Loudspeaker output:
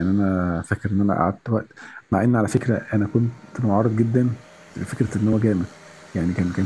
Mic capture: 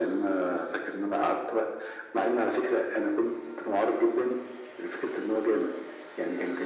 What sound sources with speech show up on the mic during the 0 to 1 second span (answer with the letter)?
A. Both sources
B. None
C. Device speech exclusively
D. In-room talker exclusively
C